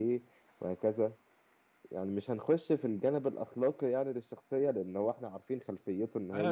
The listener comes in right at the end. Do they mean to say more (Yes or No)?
Yes